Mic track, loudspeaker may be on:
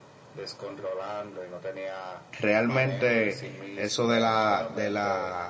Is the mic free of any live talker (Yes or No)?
No